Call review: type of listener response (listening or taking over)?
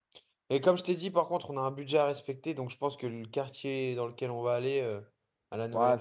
taking over